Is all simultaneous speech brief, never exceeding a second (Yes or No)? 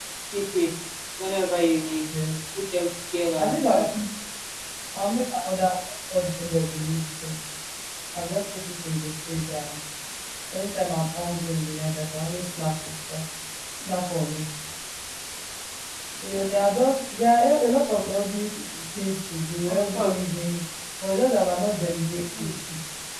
Yes